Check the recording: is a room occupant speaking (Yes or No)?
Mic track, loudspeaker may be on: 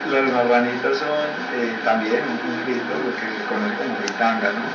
Yes